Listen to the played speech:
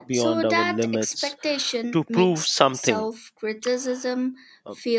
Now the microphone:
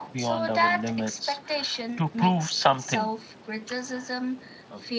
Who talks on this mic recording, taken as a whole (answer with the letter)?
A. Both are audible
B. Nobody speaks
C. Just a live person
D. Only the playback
D